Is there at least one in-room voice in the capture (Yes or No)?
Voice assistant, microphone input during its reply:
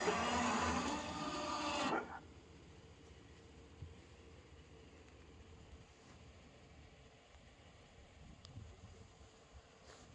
No